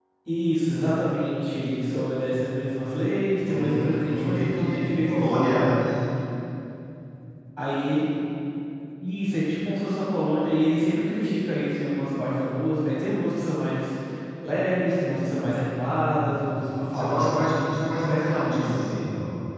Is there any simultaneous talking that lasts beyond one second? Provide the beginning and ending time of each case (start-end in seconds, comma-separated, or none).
3.5-5.7, 16.9-19.0